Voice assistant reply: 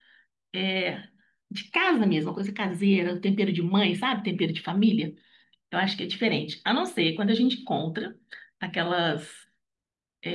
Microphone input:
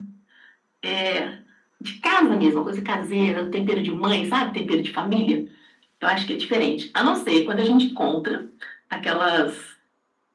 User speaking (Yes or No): No